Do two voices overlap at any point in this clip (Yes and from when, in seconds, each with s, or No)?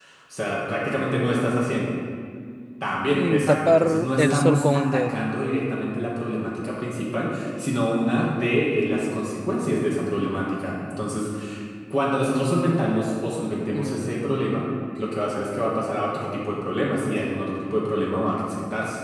Yes, from 3.1 s